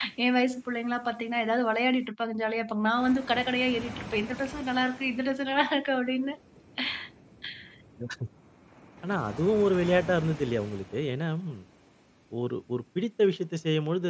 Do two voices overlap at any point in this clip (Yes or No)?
No